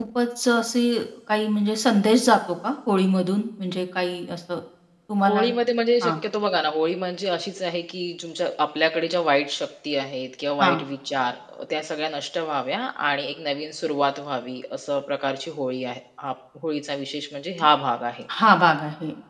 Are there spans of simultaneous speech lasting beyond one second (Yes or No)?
No